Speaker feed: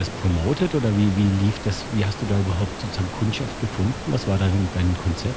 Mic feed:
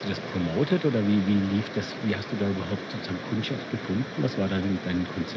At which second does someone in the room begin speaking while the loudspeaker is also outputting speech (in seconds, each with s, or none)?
none